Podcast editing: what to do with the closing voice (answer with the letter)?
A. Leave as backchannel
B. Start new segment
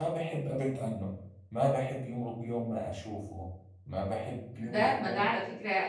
B